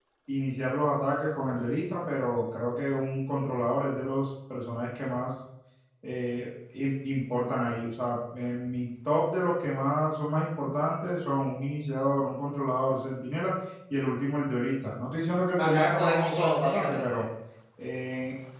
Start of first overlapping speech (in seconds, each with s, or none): 15.5 s